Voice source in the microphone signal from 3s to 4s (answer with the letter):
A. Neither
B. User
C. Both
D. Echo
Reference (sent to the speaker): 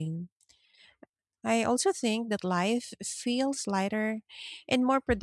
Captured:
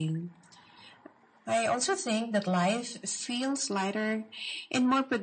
D